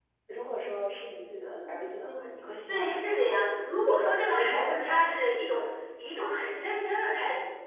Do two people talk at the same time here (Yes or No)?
Yes